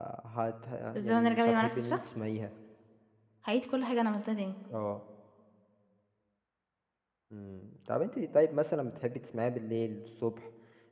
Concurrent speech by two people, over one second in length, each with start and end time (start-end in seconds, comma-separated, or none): 0.9-2.2